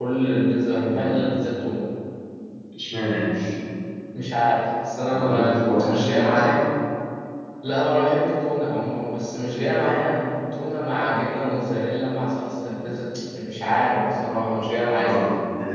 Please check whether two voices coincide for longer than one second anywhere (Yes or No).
Yes